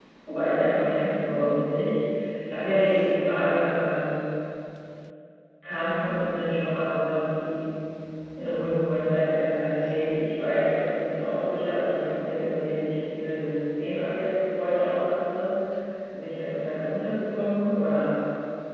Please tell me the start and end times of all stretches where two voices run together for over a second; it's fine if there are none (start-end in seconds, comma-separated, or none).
none